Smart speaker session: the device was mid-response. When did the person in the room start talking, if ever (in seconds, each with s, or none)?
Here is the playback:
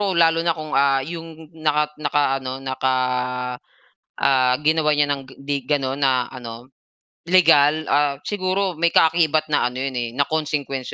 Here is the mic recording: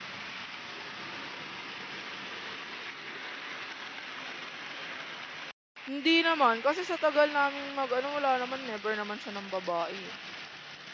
5.9 s